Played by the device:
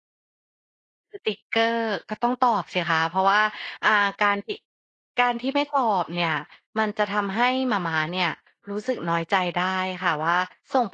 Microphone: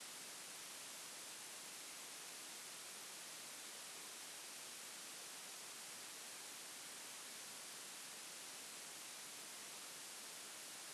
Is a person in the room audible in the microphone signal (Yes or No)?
No